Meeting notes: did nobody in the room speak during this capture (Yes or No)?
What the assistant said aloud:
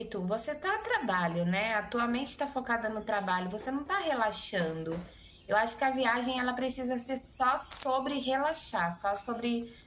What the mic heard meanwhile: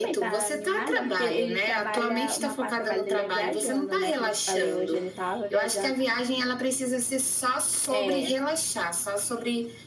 No